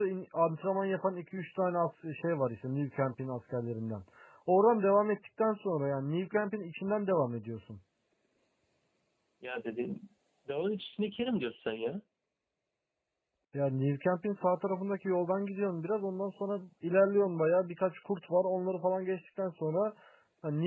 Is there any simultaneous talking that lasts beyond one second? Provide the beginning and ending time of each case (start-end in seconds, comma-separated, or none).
none